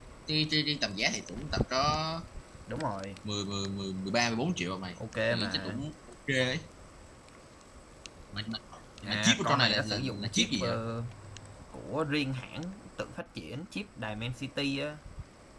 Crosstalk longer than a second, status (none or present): present